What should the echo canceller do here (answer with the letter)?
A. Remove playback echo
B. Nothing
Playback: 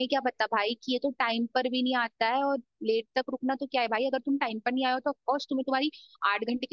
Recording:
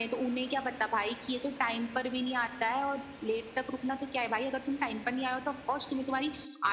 A